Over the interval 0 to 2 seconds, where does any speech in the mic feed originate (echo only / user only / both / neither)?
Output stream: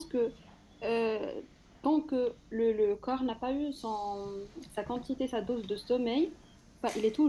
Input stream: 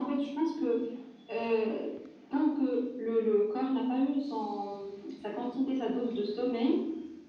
echo only